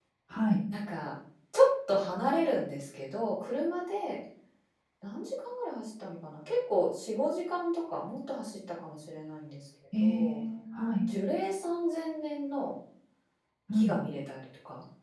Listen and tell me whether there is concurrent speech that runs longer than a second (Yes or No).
No